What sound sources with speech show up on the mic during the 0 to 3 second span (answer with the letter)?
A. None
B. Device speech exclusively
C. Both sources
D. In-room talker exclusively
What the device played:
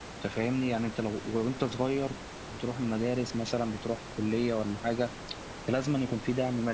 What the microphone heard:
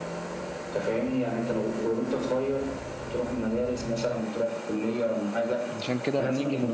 B